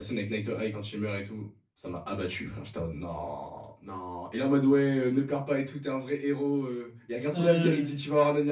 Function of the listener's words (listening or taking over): listening